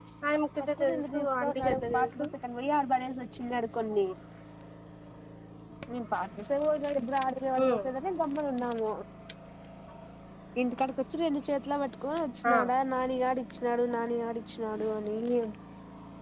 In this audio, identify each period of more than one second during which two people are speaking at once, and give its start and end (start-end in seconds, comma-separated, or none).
0.6-2.2